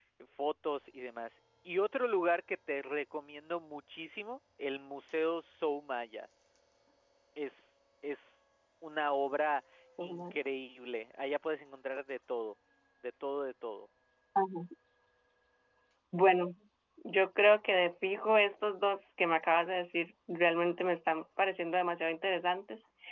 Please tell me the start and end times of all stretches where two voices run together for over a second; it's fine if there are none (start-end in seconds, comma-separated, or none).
none